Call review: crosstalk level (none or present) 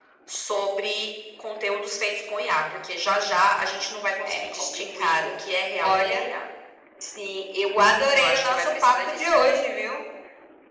present